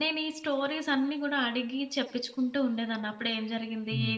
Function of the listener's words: listening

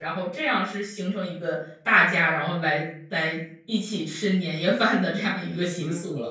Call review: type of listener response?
taking over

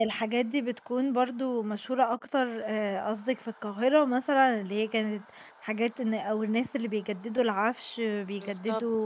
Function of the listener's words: listening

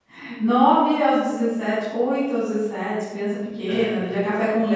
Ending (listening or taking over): listening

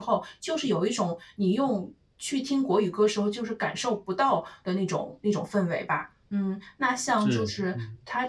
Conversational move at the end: listening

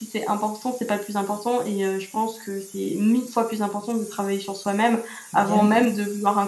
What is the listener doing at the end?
listening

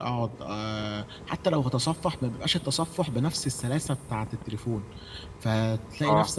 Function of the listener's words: listening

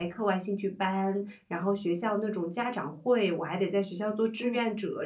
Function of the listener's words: listening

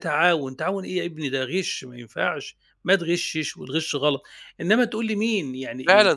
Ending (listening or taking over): taking over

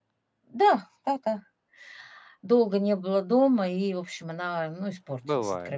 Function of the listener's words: taking over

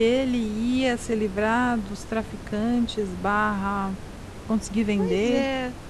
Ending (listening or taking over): taking over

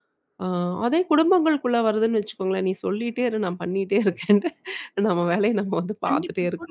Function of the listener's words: taking over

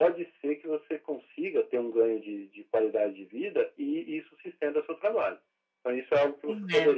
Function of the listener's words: listening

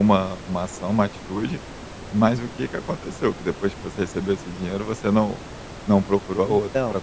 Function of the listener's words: taking over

